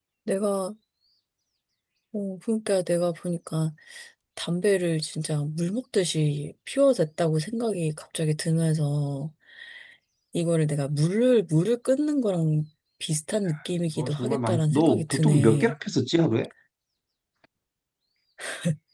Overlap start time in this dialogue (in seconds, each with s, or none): 14.0 s